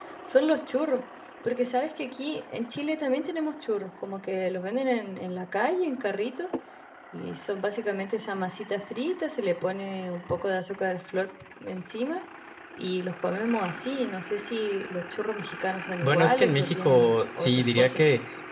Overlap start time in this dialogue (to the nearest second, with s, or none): 16 s